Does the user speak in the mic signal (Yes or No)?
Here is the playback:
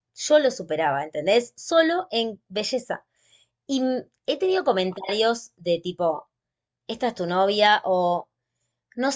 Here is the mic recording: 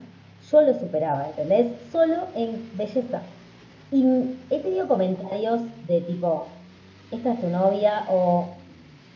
No